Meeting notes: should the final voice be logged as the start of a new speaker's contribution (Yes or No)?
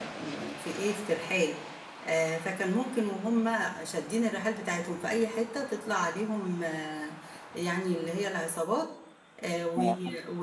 No